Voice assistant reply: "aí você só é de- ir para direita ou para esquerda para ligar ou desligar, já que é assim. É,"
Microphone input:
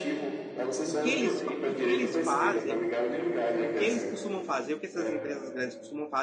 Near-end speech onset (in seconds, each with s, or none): 0.8 s